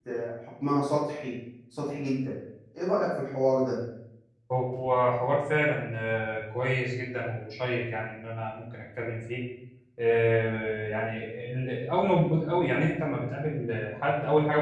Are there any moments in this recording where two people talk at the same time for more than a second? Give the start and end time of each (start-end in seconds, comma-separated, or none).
none